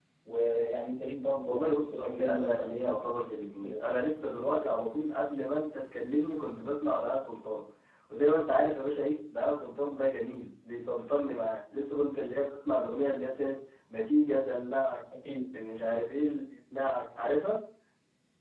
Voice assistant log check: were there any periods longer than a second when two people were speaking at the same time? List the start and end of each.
1.4-3.8

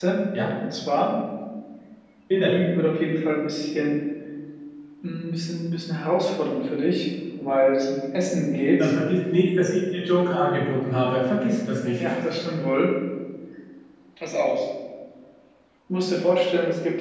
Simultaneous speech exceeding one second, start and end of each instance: none

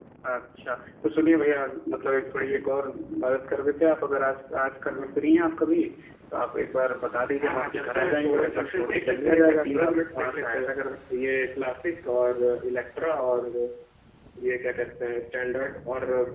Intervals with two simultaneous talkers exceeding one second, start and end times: 7.4-10.7

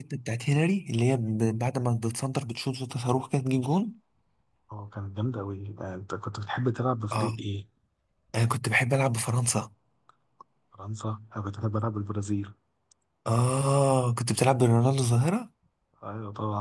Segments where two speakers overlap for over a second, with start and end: none

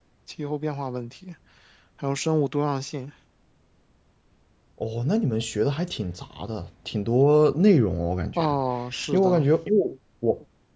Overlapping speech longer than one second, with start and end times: none

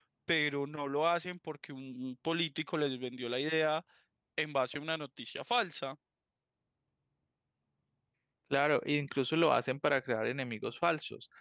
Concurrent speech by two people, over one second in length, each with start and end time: none

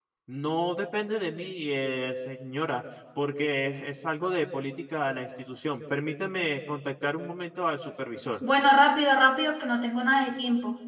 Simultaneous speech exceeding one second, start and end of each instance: none

